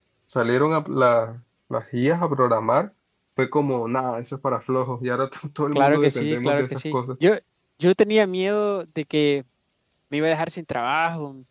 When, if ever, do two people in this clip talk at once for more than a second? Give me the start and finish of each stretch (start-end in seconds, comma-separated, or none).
5.7-7.0